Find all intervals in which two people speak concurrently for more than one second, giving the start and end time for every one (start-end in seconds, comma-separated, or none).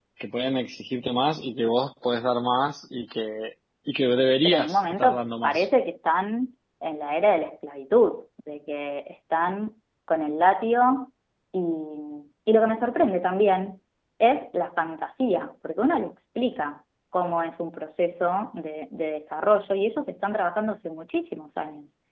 4.4-5.6